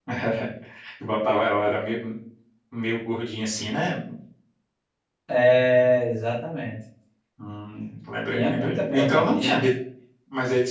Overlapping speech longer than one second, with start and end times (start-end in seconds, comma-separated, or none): 8.3-9.6